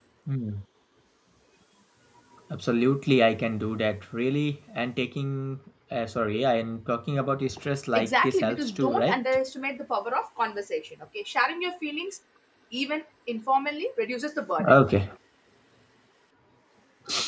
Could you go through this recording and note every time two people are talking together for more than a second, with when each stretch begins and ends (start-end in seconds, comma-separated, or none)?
7.9-9.2